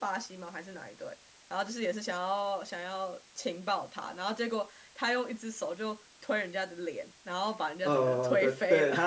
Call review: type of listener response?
taking over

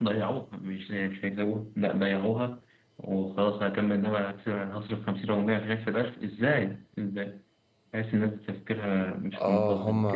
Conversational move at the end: taking over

